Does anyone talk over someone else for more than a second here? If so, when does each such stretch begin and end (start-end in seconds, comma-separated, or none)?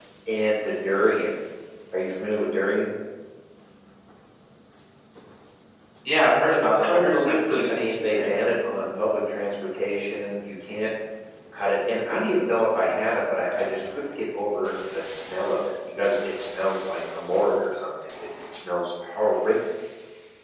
6.8-8.3